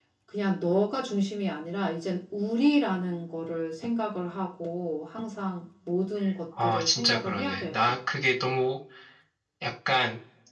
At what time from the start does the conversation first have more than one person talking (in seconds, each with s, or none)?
6.6 s